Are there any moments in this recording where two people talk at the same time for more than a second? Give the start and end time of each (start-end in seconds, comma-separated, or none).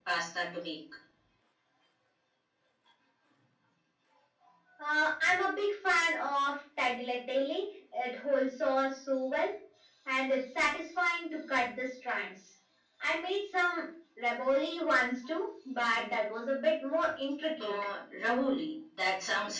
none